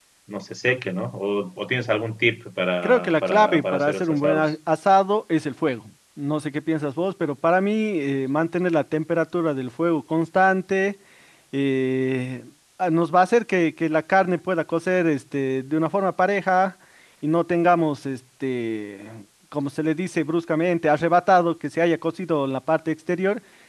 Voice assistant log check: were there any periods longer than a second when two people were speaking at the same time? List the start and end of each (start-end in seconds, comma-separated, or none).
2.8-4.5